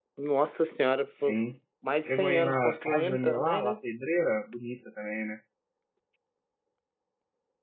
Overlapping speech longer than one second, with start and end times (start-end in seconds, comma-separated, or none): 2.0-3.8